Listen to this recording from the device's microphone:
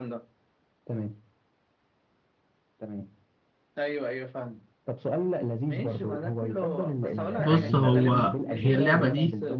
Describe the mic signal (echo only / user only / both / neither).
both